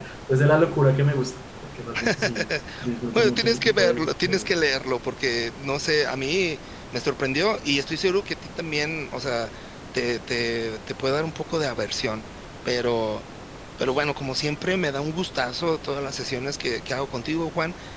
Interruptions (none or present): present